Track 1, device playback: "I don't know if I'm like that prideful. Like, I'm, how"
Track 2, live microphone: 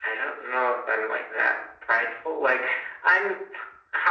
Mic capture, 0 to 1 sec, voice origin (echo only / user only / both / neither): echo only